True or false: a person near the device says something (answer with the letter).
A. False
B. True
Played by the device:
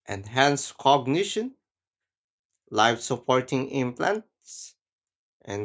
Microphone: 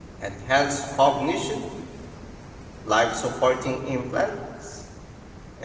A